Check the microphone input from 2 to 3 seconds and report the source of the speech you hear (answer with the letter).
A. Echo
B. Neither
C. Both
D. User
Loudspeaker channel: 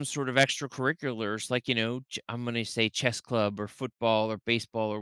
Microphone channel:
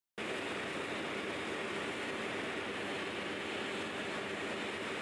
B